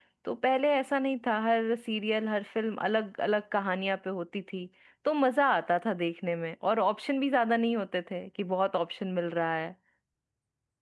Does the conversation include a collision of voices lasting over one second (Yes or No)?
No